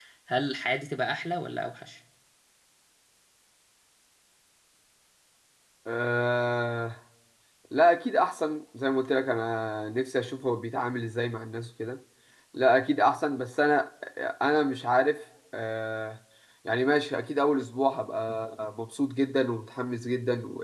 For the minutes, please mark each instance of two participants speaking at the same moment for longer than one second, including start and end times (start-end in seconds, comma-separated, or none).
none